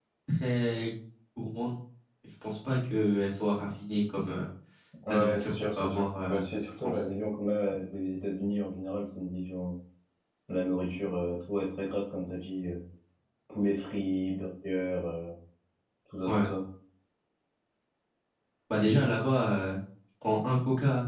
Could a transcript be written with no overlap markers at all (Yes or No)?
No